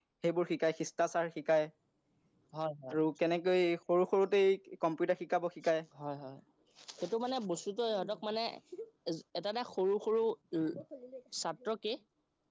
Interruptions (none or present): none